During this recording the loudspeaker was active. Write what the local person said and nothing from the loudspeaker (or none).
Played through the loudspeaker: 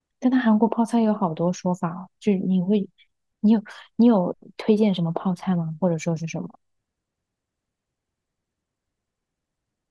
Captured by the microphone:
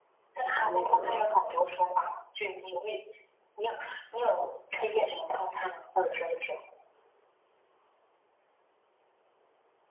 把那个，